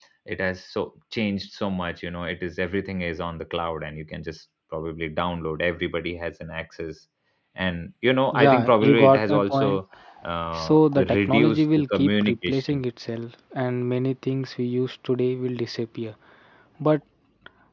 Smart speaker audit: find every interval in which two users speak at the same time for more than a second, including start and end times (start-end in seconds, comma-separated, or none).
8.3-9.8, 10.5-12.8